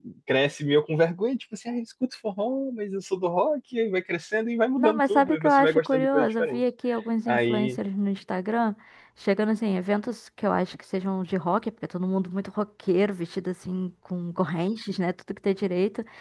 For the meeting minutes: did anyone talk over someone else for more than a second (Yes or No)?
Yes